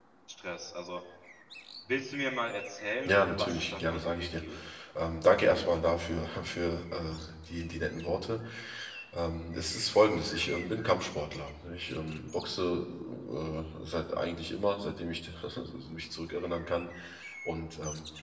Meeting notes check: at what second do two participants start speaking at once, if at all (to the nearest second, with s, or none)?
3 s